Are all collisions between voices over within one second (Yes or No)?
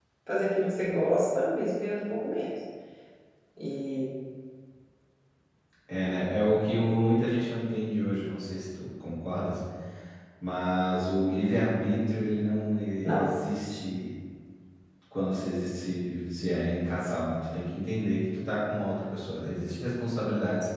Yes